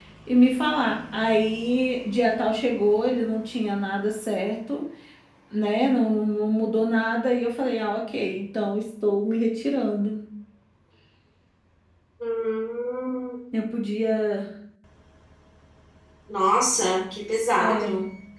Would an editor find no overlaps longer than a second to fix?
Yes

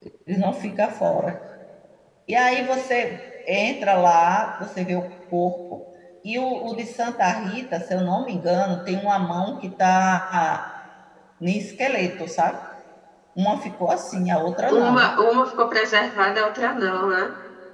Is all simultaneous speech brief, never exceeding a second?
Yes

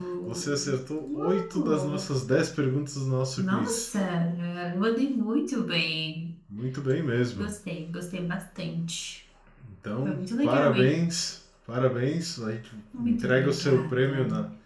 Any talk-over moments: Yes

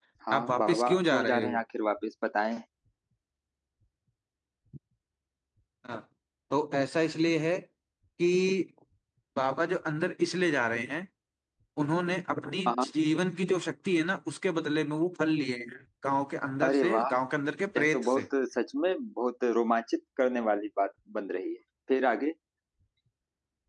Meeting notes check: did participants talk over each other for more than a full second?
Yes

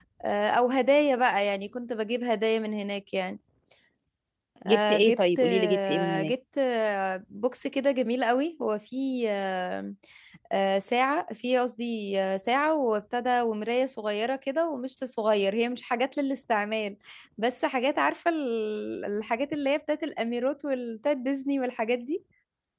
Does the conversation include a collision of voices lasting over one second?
Yes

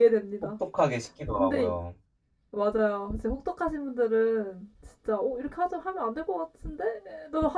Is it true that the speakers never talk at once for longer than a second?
Yes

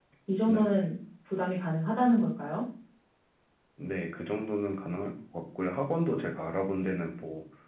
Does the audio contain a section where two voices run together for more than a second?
No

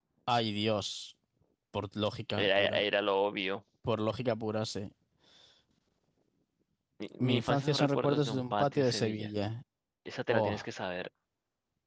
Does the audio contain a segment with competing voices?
Yes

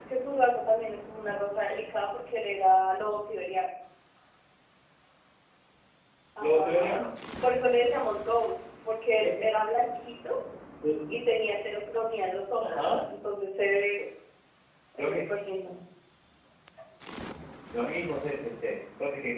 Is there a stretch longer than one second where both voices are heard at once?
No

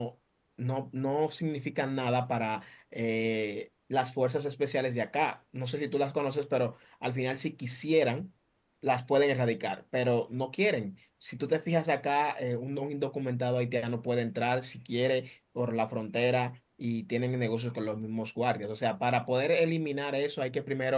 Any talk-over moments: No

